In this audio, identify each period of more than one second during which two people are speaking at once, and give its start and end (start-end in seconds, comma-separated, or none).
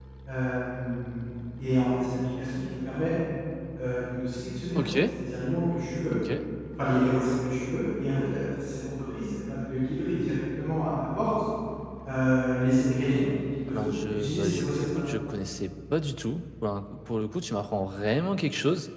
13.7-15.0